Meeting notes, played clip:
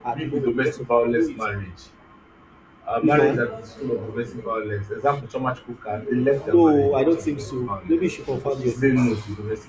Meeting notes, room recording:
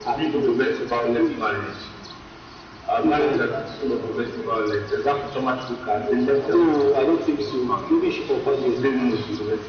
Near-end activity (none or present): none